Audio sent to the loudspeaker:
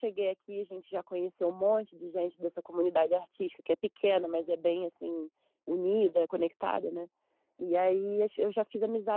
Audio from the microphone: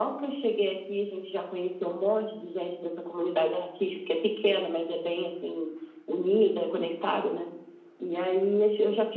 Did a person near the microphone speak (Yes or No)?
No